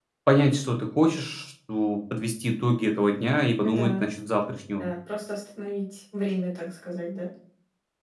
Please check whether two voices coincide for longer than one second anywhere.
No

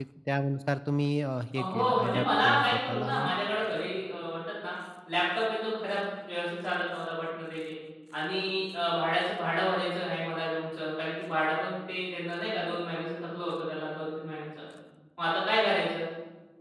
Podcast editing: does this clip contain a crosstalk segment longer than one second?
Yes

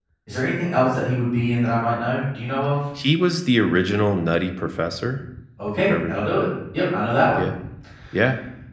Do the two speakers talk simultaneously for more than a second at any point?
No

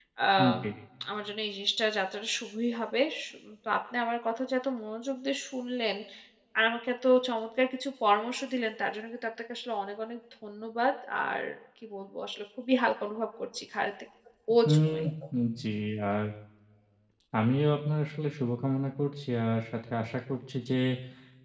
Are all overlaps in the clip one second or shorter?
Yes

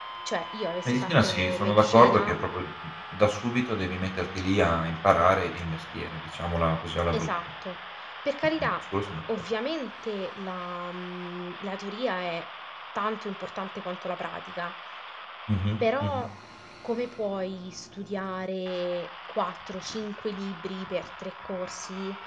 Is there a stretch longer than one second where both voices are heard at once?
Yes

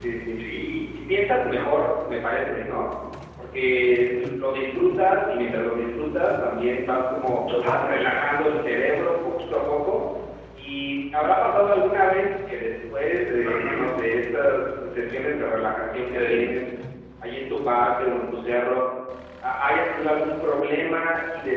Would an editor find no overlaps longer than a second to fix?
Yes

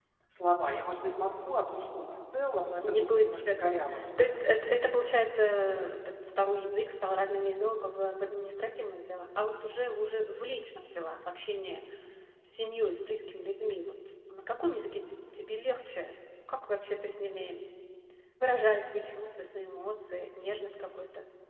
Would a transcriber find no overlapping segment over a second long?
No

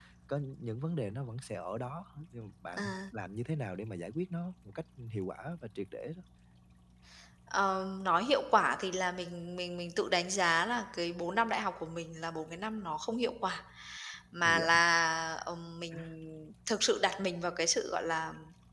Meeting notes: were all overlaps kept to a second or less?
Yes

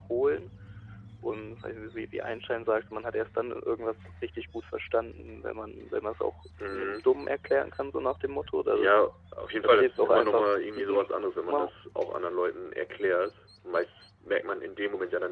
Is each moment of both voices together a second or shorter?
No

